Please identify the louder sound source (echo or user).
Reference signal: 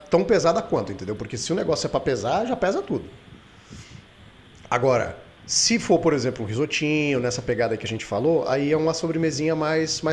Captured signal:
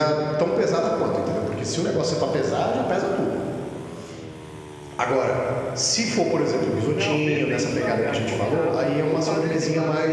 echo